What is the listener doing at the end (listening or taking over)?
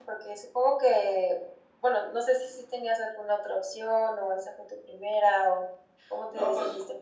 taking over